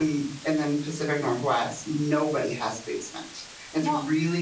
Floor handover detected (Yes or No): No